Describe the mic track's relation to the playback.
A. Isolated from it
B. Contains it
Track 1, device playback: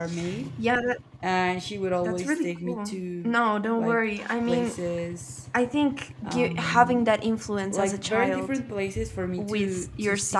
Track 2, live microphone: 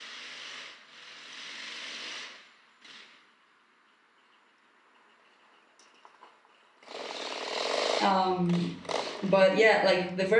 A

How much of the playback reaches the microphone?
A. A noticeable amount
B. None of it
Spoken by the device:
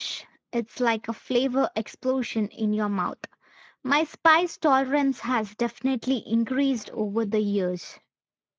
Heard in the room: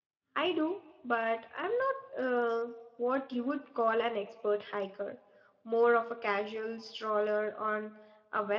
B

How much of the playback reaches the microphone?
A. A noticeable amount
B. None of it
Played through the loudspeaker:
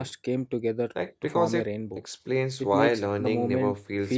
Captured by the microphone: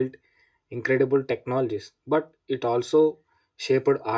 B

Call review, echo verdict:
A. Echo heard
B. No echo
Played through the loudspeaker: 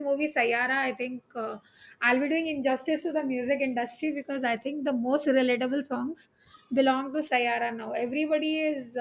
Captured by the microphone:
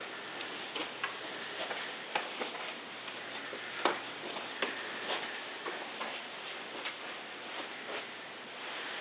B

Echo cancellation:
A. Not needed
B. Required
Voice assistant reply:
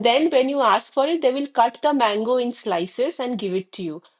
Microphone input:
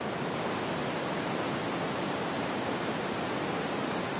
A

